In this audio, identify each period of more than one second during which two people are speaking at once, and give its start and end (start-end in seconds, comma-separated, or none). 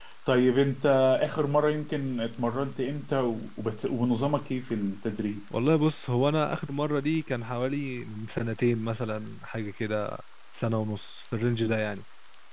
none